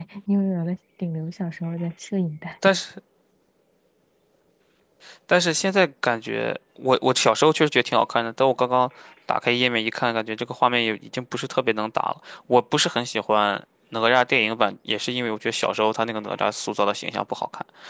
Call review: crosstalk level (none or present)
none